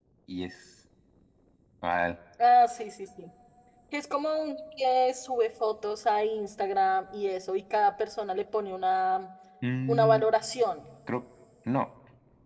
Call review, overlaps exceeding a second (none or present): none